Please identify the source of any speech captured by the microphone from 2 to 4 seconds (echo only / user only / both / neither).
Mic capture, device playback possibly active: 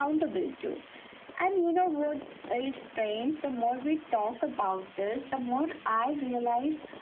echo only